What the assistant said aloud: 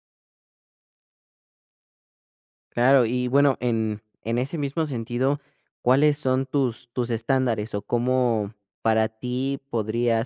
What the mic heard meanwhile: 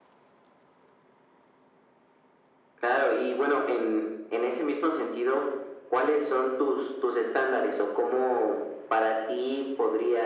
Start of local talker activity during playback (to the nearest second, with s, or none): none